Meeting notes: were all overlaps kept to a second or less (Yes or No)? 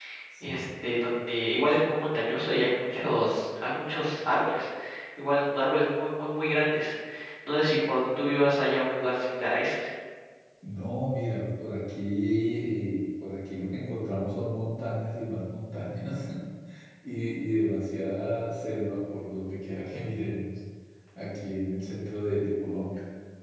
Yes